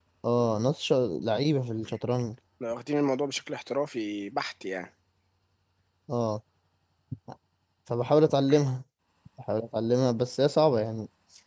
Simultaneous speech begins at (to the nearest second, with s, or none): none